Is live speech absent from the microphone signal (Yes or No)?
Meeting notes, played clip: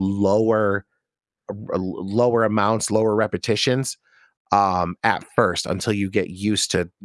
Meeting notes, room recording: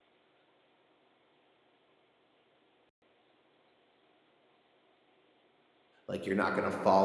No